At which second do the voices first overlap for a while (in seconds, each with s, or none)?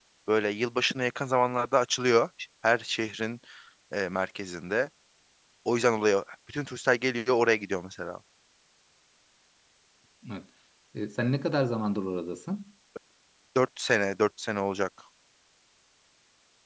none